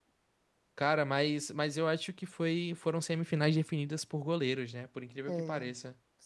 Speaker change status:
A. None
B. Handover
B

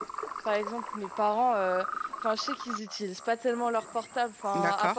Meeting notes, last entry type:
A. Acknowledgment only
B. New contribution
A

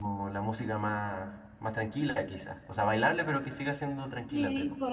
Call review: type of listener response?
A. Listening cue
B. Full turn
B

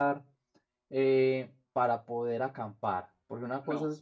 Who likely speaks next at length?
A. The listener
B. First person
B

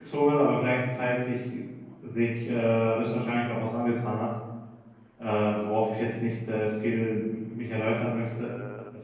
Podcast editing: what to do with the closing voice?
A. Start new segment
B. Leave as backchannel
B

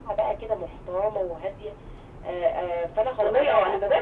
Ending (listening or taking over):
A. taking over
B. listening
A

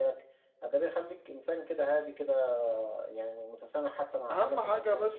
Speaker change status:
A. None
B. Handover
B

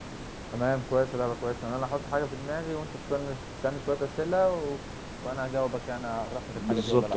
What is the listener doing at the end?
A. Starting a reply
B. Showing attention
A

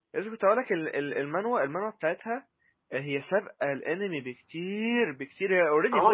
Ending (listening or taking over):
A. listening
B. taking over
B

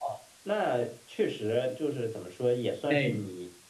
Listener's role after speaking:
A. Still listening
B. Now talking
A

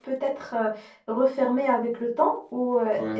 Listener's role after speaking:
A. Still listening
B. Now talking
A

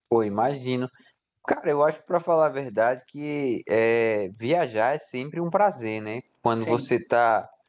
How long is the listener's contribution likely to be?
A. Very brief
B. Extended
A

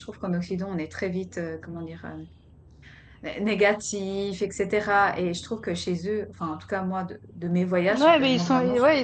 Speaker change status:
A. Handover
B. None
A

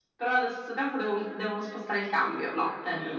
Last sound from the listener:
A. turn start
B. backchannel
A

